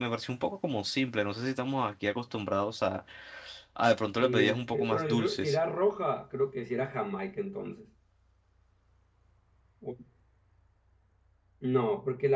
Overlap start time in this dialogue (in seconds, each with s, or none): 4.2 s